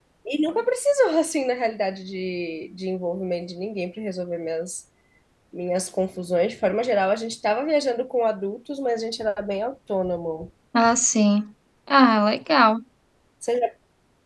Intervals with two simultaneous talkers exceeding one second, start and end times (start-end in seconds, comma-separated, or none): none